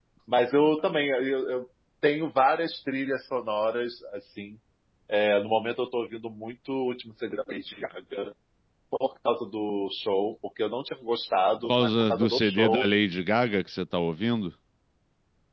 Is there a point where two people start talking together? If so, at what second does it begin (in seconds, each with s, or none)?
11.6 s